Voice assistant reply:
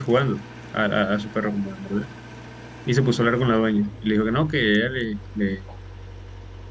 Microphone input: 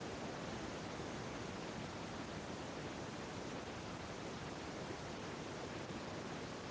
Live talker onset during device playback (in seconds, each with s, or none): none